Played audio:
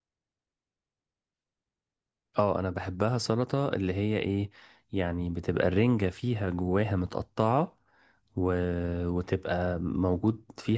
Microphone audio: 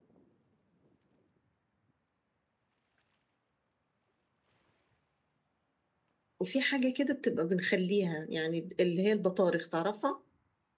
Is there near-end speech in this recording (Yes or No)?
Yes